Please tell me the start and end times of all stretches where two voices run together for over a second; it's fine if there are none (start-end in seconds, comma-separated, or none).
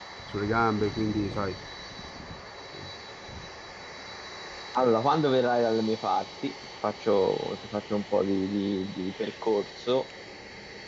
none